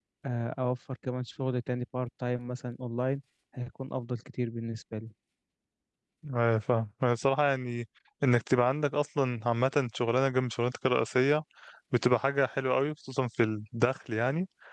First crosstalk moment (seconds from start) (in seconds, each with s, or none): none